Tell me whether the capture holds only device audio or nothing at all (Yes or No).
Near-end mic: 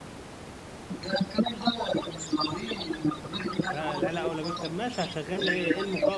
No